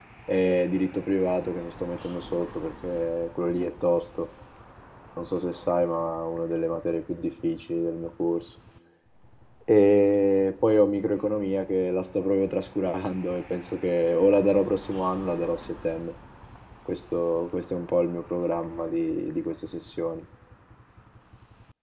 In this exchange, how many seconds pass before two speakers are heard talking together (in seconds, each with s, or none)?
none